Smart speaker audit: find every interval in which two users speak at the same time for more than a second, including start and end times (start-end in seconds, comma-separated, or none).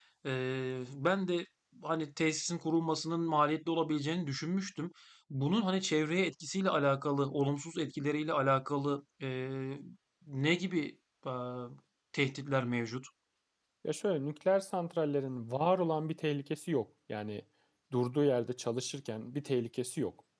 none